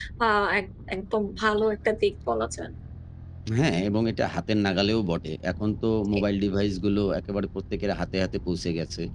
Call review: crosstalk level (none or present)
none